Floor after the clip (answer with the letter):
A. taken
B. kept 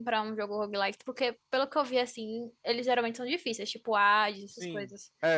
A